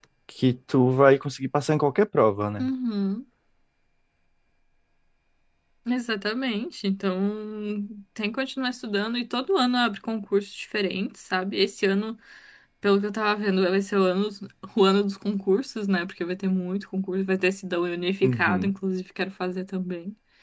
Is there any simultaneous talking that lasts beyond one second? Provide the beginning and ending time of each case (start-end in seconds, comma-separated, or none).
none